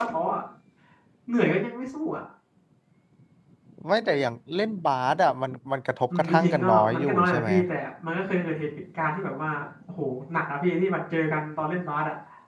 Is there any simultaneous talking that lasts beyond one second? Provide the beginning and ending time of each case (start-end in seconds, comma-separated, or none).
6.2-7.5